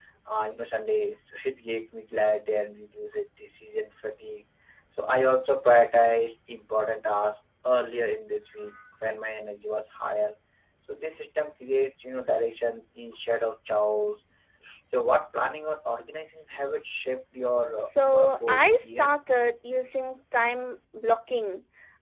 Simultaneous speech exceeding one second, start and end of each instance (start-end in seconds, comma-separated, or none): 17.9-19.1